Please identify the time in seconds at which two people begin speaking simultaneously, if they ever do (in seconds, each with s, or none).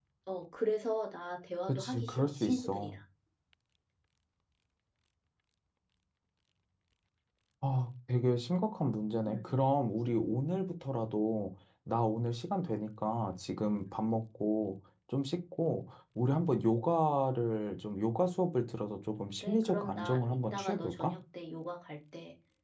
1.7 s